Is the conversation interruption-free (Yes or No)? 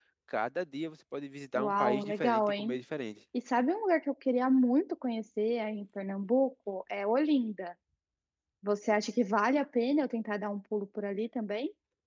No